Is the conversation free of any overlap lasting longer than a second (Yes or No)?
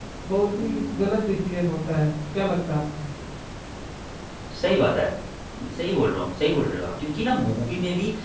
Yes